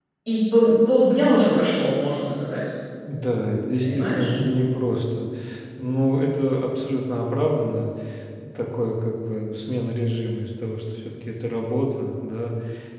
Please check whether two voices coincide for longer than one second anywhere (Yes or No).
No